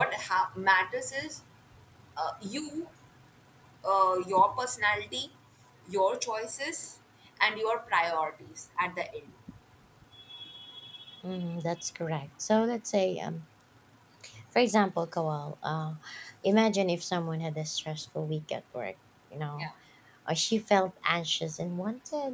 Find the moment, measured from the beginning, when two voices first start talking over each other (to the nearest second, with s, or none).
none